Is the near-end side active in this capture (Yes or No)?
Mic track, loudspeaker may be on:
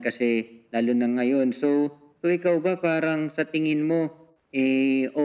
No